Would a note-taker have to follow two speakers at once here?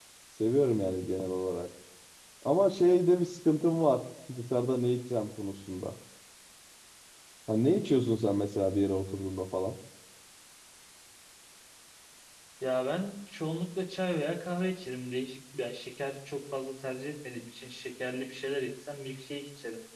No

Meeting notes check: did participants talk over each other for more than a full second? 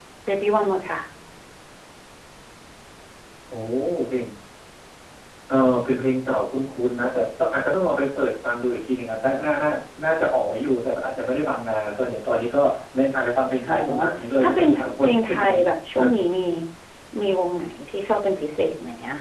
Yes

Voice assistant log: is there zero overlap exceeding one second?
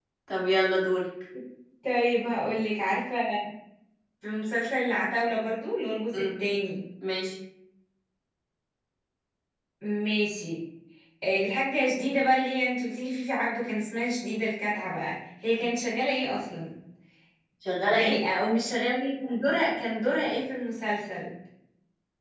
Yes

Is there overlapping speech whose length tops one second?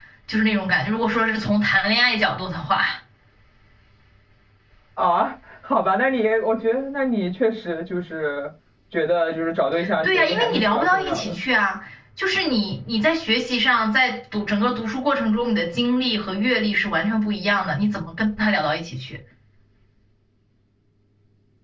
Yes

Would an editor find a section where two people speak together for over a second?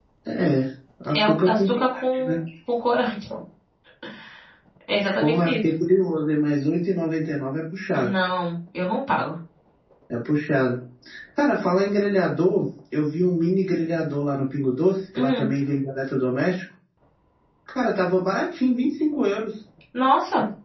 Yes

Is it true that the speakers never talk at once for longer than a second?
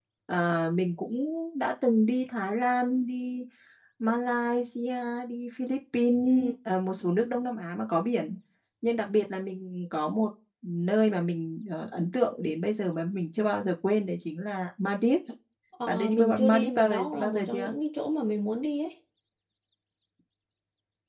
No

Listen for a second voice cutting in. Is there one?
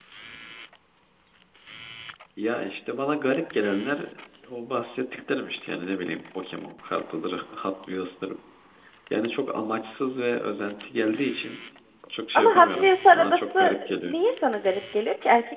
Yes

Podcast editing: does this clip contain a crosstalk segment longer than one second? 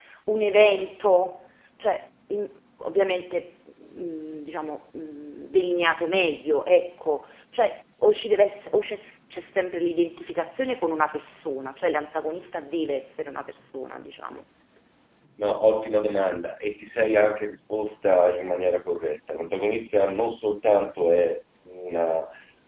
No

